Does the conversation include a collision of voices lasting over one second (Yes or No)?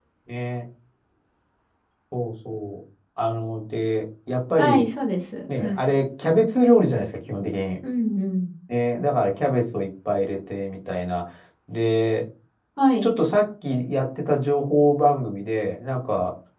No